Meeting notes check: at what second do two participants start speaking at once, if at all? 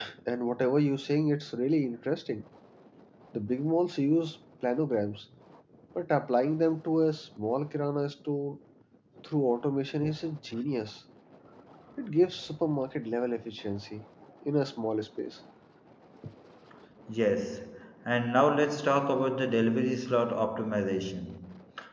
none

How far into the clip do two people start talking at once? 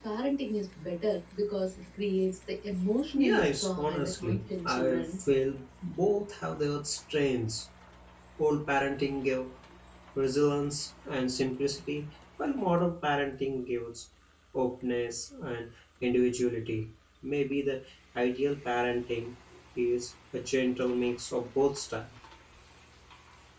3.1 s

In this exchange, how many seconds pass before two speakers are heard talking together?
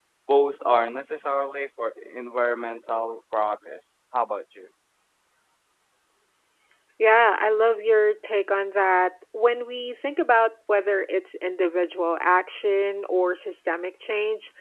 none

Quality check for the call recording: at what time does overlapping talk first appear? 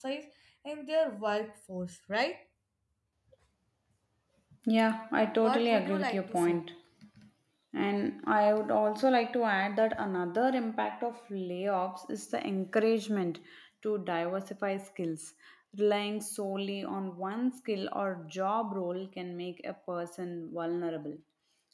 5.4 s

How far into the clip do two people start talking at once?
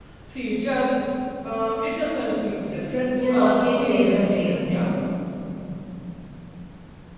3.1 s

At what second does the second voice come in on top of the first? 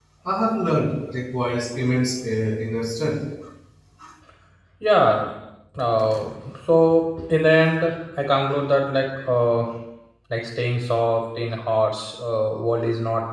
none

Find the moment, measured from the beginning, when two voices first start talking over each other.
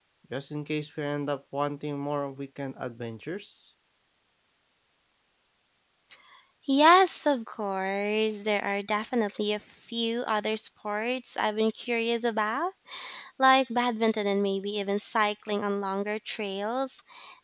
none

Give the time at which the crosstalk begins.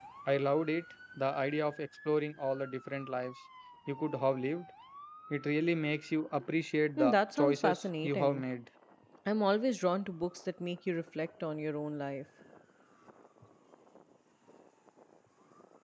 7.0 s

